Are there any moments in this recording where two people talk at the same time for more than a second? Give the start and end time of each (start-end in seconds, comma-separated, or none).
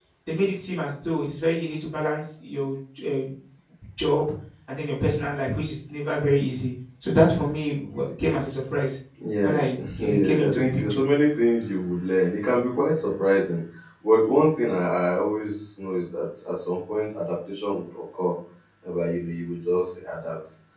9.4-11.0